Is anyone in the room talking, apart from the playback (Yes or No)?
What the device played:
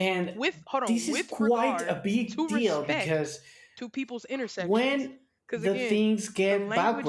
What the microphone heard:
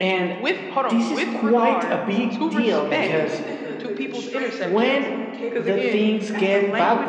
Yes